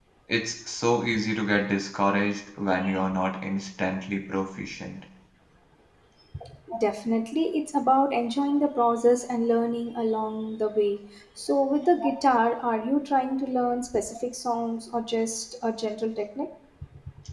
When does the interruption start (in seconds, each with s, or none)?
none